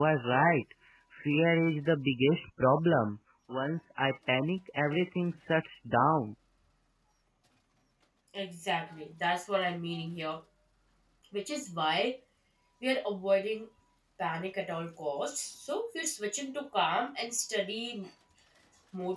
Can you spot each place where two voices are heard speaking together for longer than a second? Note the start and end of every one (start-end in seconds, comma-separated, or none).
none